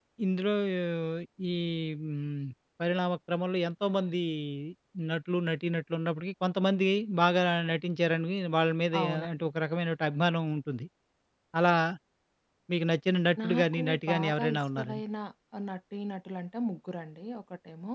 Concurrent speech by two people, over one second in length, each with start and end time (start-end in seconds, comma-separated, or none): 13.4-15.0